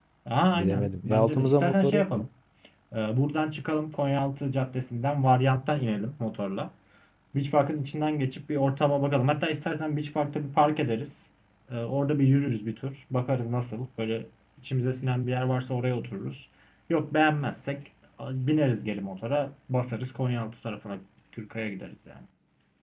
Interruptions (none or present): present